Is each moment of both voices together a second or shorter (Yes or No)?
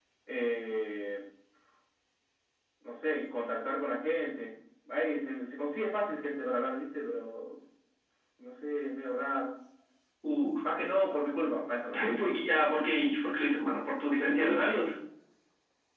Yes